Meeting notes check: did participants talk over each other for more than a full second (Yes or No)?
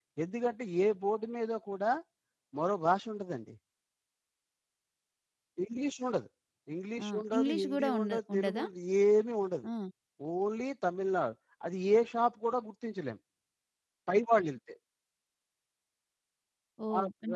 Yes